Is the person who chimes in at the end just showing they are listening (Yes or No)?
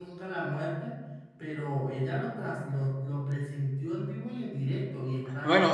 No